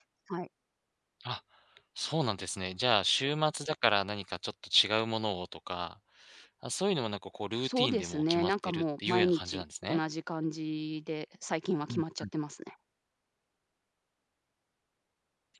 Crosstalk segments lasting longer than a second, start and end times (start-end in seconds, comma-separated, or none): 7.6-10.0